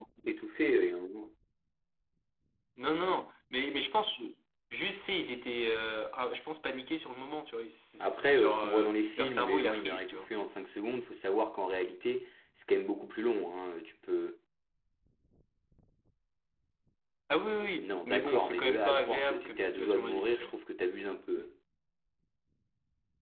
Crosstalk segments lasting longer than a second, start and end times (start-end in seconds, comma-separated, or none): 8.0-10.3, 17.8-20.6